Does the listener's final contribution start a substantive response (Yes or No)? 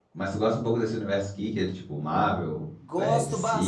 Yes